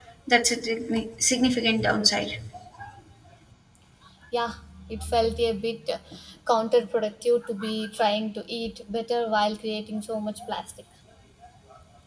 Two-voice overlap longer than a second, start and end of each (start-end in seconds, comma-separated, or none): none